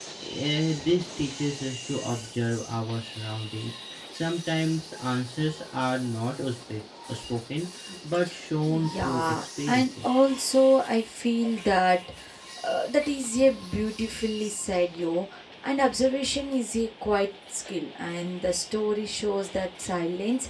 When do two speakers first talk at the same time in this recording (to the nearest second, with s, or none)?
9 s